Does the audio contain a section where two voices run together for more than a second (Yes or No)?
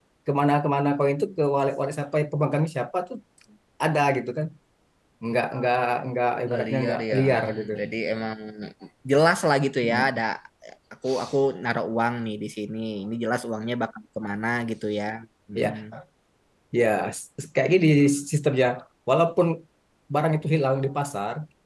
Yes